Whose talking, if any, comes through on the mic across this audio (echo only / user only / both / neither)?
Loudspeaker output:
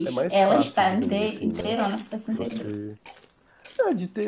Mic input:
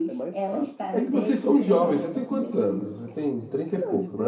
both